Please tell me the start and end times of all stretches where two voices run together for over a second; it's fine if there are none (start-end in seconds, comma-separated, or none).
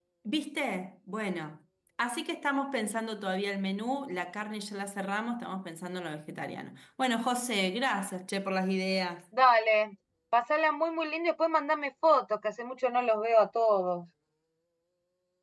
none